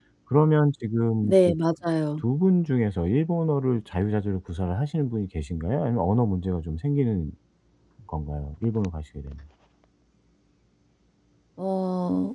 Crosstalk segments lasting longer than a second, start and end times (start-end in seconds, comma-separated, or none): none